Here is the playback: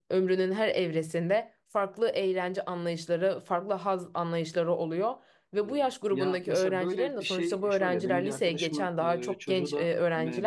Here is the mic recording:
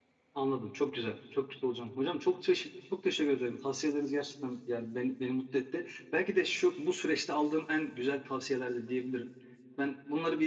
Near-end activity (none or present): present